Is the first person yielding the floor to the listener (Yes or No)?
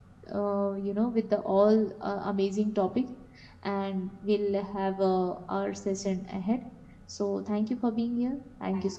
Yes